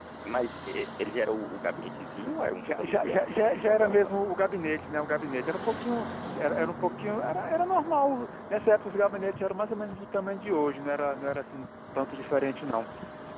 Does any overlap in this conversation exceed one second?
Yes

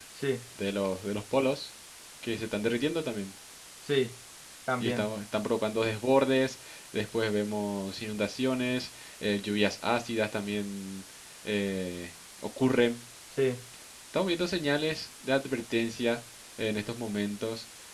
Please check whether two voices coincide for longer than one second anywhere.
No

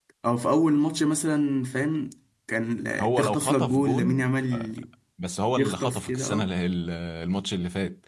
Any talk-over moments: Yes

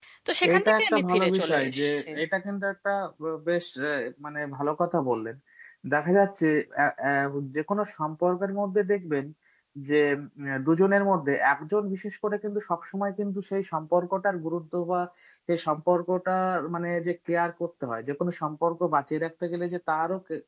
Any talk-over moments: Yes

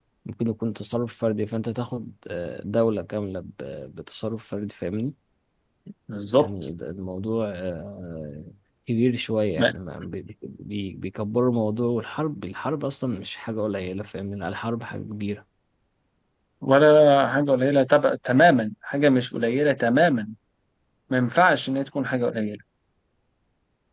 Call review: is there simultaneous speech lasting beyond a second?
No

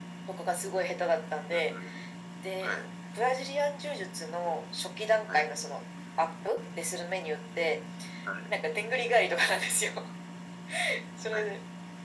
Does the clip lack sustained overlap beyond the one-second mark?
Yes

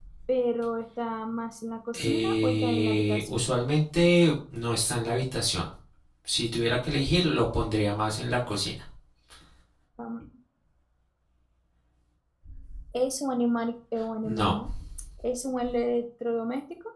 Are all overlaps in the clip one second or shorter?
No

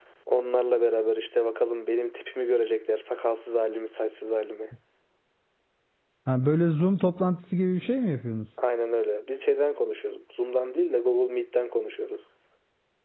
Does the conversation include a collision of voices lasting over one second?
No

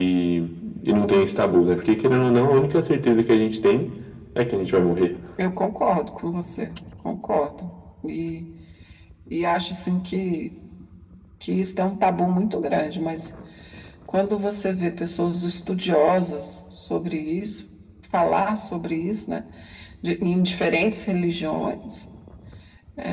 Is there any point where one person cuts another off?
No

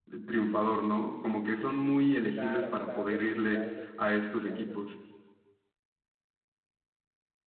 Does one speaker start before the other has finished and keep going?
Yes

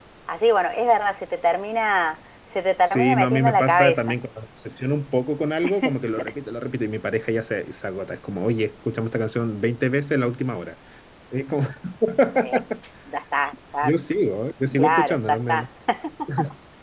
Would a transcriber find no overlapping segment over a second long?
No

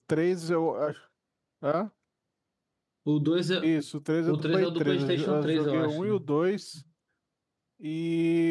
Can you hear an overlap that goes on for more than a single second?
Yes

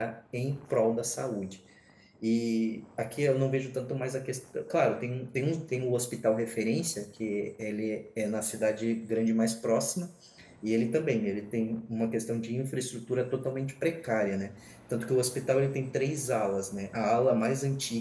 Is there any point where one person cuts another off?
No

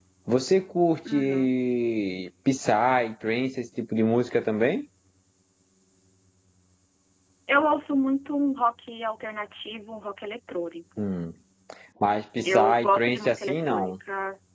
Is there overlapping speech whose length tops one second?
Yes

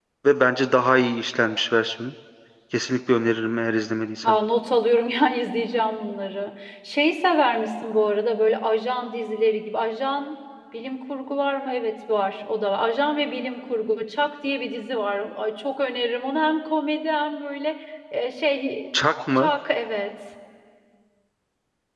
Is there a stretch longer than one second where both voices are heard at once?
No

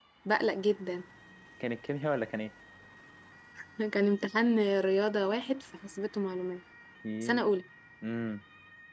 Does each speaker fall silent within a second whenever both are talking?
Yes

